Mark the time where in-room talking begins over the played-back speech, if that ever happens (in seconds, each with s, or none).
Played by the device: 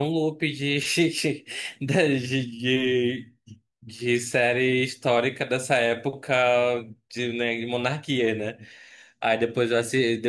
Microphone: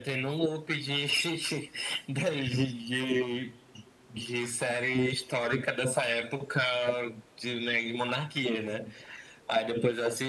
none